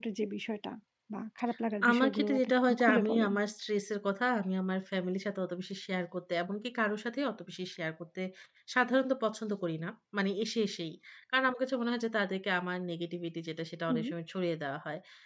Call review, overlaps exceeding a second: present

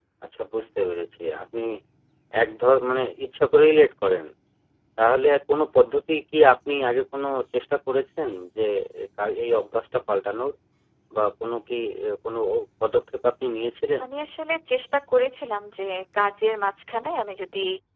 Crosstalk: none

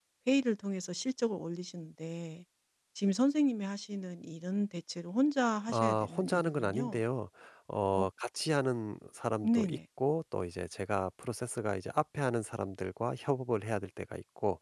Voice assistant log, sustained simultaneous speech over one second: present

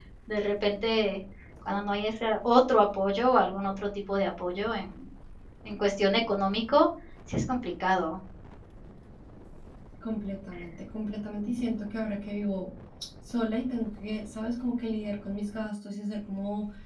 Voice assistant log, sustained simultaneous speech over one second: none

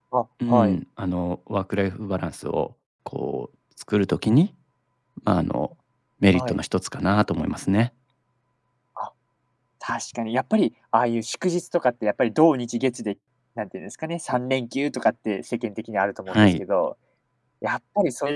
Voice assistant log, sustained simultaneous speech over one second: none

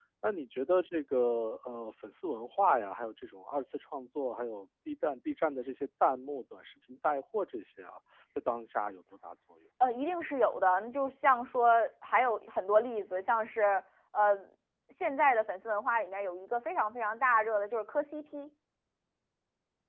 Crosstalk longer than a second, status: none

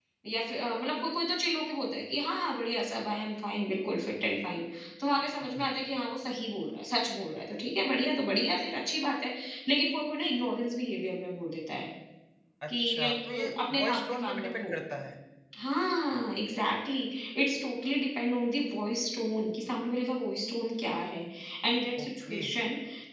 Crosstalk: present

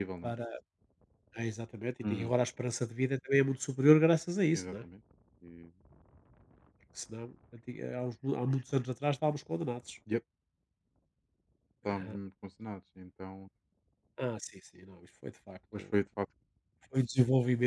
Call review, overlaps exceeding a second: none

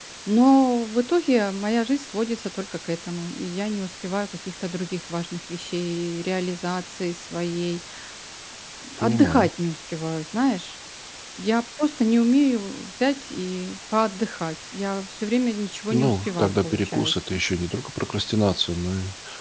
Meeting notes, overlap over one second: present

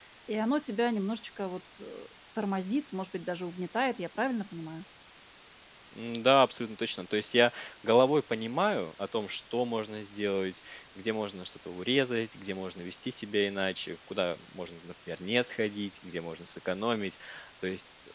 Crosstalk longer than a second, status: none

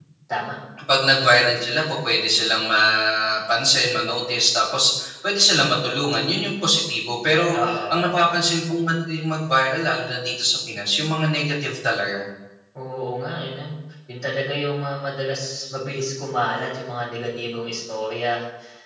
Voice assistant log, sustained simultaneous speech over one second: none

